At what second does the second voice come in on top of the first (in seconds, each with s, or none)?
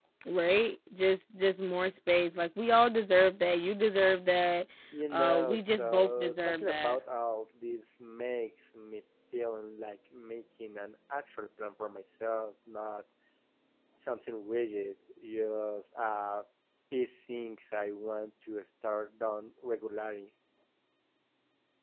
5.1 s